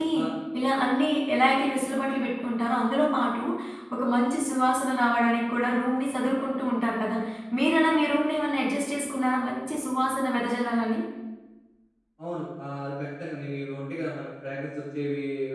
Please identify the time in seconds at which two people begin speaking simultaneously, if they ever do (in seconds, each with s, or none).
none